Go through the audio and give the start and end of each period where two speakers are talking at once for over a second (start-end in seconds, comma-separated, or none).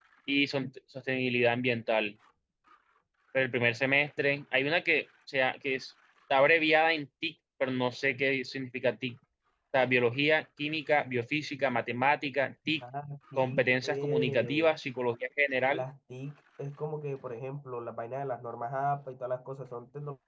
13.4-14.7